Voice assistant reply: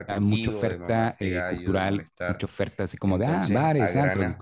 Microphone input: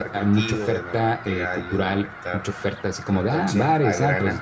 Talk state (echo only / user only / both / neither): echo only